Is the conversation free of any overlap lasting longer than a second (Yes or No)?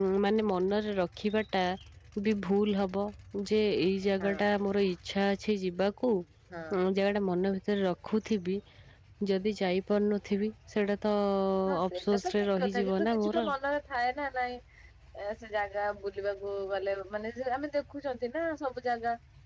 No